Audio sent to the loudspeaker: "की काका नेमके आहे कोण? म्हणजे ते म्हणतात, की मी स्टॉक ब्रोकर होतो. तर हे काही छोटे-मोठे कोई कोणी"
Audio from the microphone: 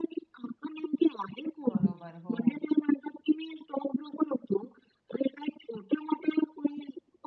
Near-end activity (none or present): present